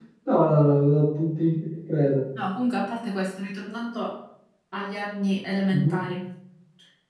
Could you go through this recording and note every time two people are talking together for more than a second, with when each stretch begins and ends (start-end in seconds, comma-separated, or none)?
none